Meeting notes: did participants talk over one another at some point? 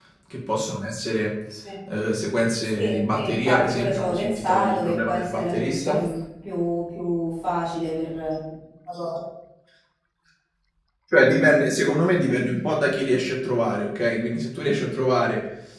Yes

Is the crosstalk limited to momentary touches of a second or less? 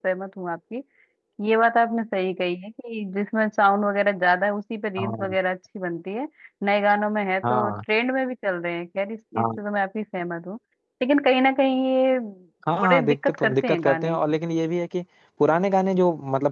No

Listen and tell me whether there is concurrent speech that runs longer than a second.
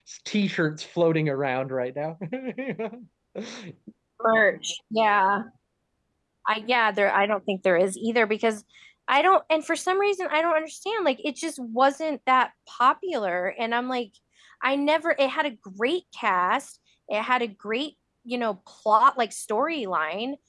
No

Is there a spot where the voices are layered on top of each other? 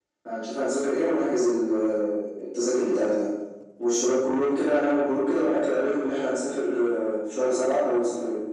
No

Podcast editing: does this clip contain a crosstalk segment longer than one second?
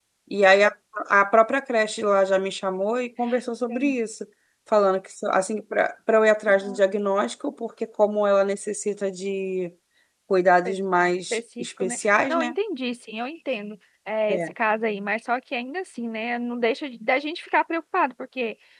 Yes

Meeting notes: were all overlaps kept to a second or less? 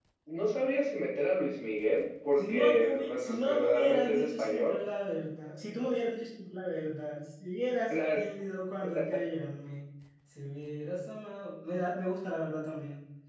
No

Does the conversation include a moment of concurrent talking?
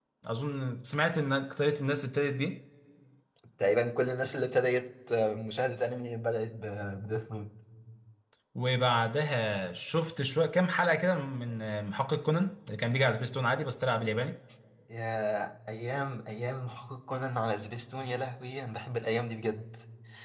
No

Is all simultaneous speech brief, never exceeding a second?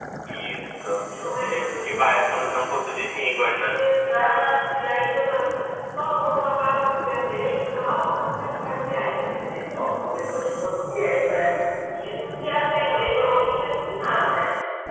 Yes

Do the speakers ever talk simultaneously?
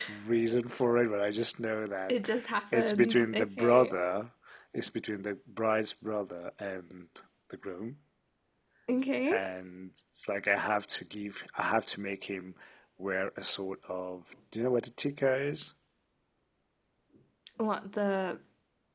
Yes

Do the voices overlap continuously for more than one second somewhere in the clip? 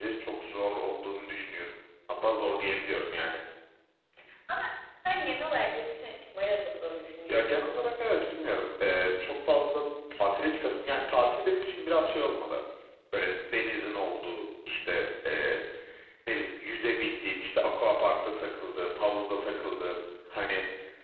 No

